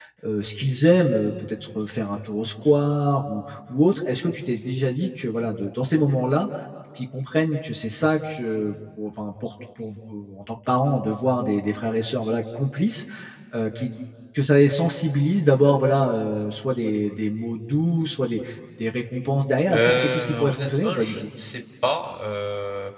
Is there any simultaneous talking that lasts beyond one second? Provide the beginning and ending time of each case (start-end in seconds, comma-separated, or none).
19.7-21.3